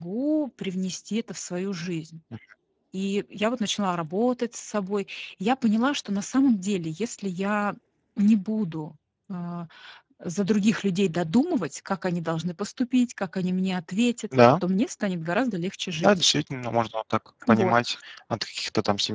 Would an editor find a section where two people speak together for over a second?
No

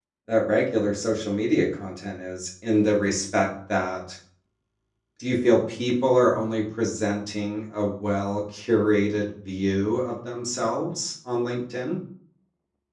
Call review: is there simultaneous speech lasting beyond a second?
No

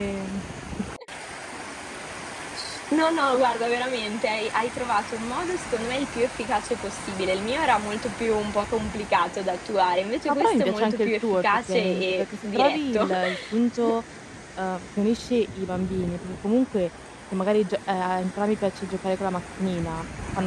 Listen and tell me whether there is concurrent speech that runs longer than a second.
Yes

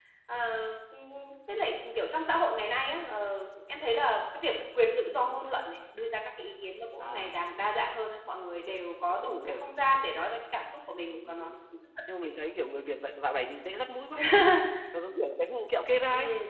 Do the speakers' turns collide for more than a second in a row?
No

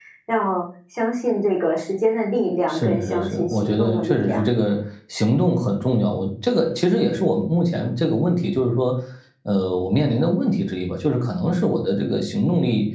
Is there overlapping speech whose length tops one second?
Yes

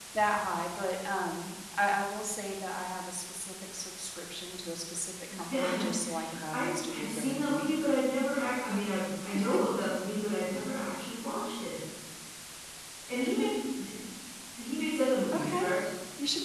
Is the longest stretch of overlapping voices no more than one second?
No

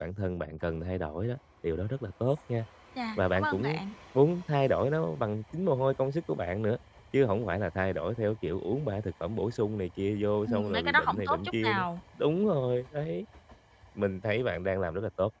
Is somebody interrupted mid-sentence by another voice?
Yes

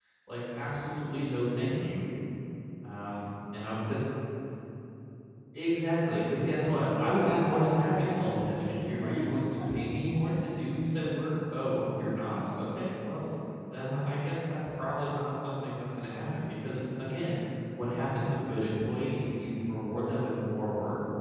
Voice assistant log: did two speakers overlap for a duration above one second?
Yes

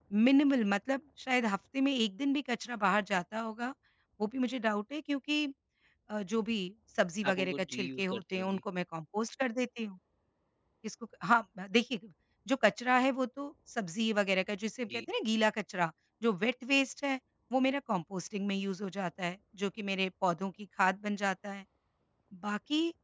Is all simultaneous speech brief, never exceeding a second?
No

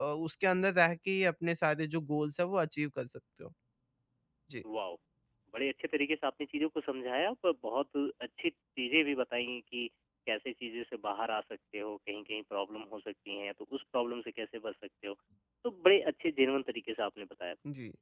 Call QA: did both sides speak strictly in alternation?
Yes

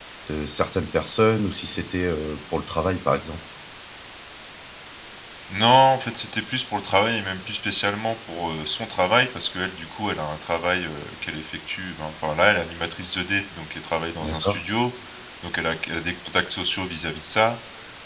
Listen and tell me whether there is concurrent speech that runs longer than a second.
No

